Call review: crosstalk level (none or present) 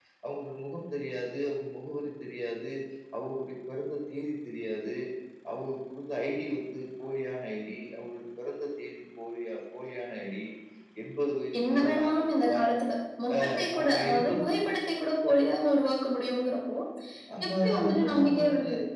present